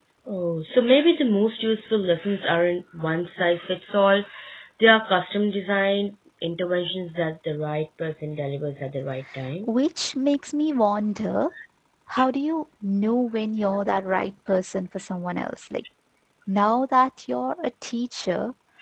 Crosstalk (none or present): none